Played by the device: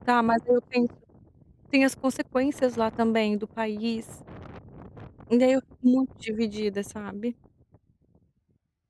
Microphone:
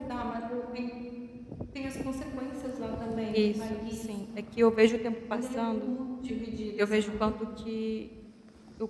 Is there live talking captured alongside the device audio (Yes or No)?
Yes